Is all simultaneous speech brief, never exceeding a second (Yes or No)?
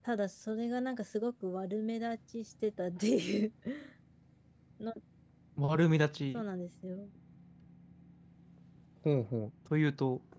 Yes